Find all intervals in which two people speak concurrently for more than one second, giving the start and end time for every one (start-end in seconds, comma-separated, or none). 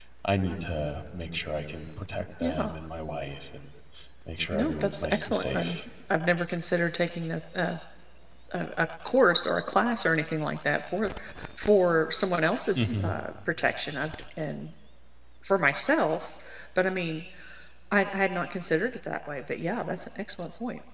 4.5-5.8